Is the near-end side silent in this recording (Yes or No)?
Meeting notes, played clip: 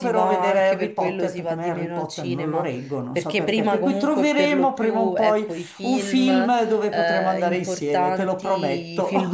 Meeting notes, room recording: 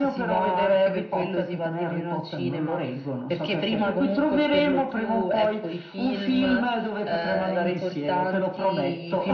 Yes